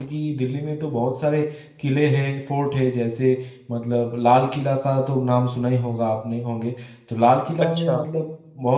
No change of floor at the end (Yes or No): Yes